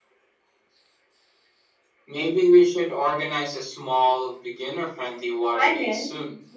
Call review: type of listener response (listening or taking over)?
taking over